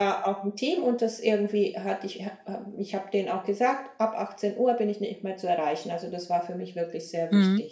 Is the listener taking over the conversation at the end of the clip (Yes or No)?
Yes